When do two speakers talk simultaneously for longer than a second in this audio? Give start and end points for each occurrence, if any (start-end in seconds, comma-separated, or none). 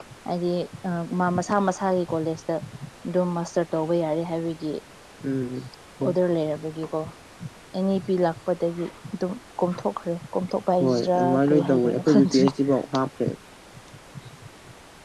10.8-12.5